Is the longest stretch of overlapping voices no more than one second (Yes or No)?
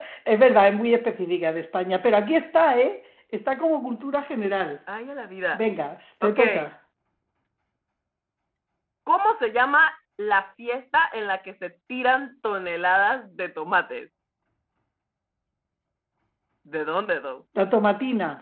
Yes